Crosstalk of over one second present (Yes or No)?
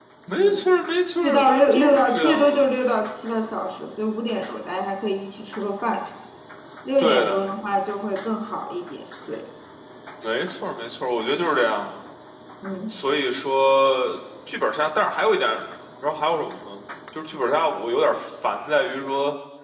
Yes